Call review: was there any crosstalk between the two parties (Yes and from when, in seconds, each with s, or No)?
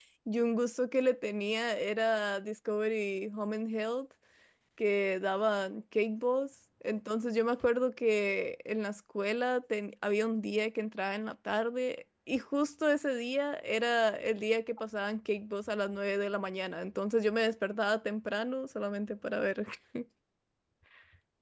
No